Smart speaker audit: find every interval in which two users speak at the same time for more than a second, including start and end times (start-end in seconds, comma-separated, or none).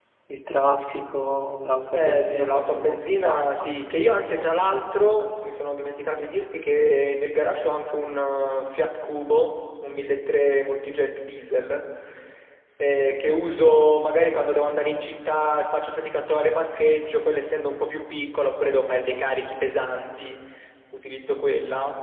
1.9-3.7